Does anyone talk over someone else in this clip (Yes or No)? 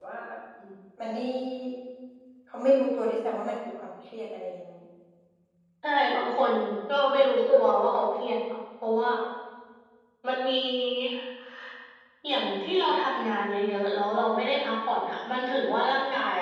No